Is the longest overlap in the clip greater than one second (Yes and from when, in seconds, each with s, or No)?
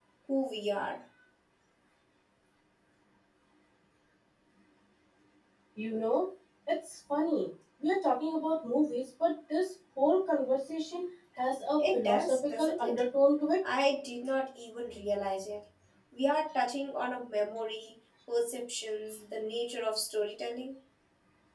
Yes, from 11.8 s